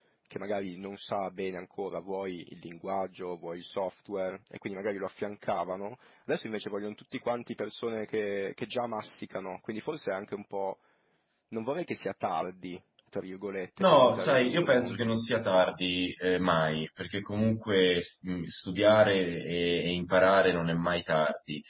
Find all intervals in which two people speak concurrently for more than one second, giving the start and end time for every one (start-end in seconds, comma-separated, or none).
13.9-15.1